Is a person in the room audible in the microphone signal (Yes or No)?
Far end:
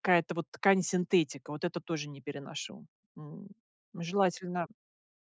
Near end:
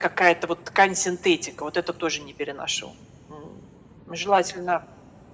No